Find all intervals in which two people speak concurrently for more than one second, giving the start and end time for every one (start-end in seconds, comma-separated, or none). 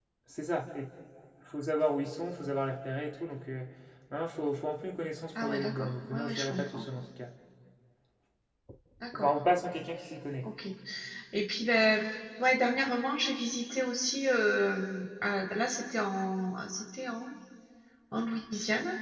5.4-6.8